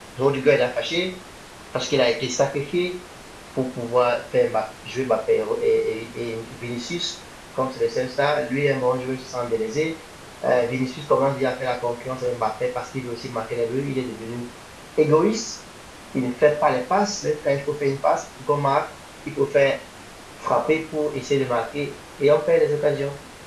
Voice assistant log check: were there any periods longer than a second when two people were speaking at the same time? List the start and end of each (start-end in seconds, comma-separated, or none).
none